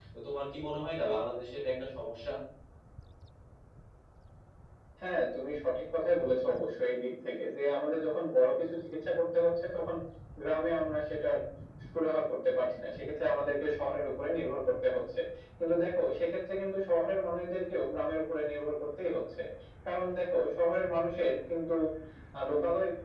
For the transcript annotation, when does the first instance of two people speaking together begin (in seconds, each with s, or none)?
none